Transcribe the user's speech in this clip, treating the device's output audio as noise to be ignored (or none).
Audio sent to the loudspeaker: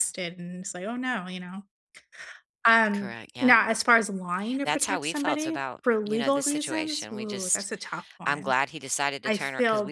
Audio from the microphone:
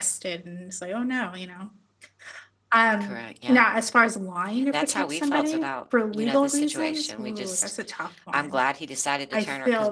none